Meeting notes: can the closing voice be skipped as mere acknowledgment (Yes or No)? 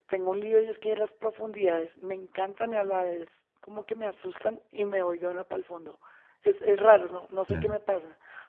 Yes